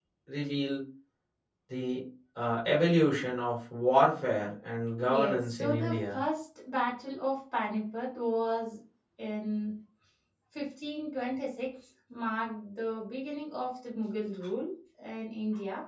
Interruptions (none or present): present